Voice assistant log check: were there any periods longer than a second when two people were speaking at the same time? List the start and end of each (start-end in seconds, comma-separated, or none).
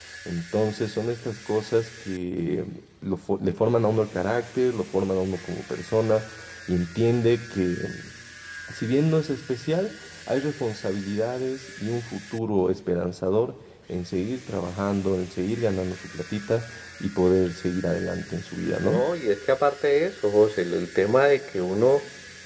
none